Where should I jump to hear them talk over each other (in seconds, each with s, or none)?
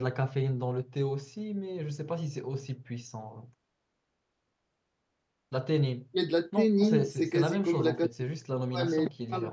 6.6 s